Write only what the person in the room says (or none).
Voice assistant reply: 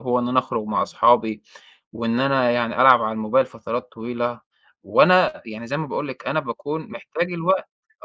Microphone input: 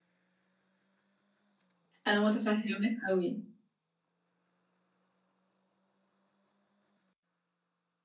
أنا متفهماك أوي،